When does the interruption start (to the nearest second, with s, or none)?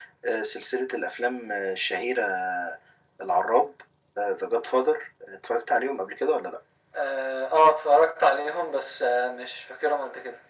none